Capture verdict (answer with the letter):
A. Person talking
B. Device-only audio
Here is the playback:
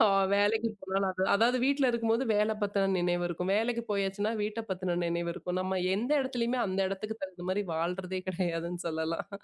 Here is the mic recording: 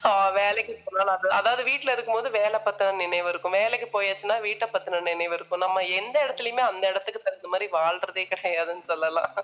B